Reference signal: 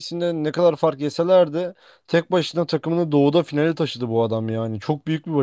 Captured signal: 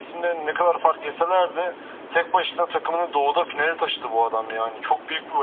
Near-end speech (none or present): none